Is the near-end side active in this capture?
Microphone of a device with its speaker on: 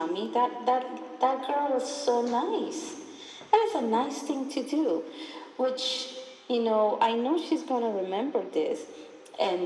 No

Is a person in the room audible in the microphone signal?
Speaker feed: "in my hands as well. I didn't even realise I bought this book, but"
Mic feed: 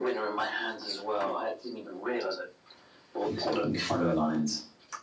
Yes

